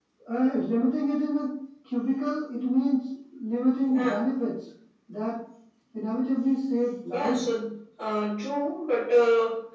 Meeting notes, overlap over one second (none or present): none